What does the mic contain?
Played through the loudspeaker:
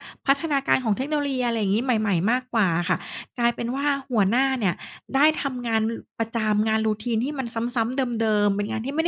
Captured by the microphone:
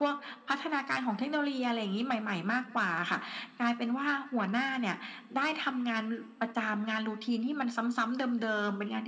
echo only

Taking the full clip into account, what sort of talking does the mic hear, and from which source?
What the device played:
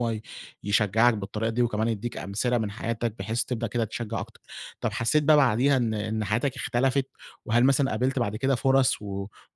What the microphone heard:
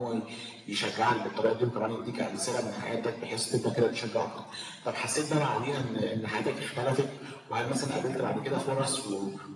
both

